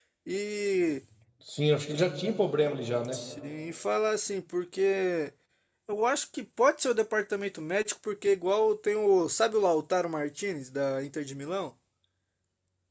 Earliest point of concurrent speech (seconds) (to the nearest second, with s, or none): none